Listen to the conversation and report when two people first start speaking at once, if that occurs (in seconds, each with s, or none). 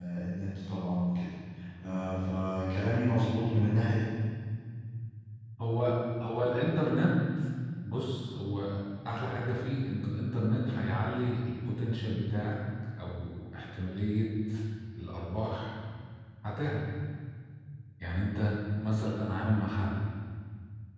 none